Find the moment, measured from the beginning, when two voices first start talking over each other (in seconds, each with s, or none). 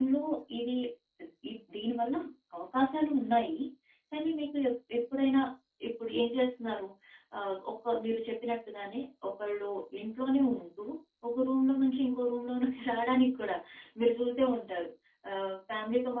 none